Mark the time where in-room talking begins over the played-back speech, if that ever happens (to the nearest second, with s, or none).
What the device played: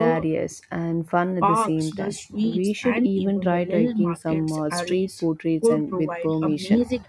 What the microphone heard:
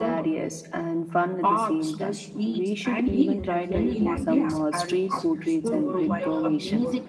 3 s